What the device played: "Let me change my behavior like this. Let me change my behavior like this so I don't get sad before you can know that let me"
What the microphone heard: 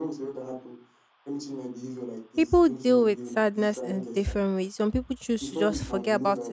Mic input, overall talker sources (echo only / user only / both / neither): both